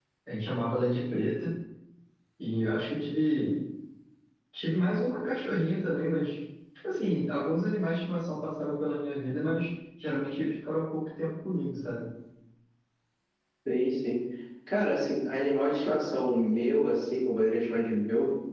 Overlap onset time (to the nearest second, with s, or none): none